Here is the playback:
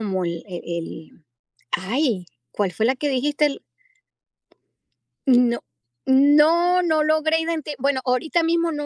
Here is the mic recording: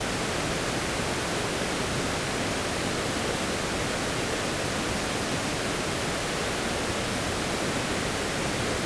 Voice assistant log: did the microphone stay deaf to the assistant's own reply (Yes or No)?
Yes